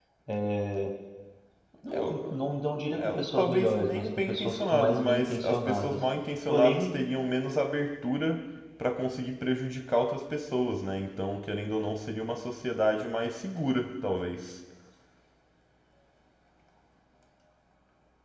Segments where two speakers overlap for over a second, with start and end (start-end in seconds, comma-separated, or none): 3.0-6.0